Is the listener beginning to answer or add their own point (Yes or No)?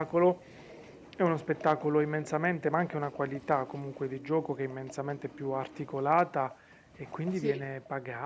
No